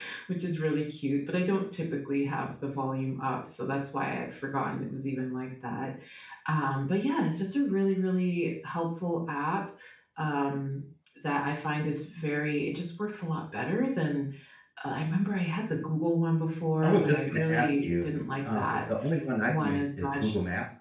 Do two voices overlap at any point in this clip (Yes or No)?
Yes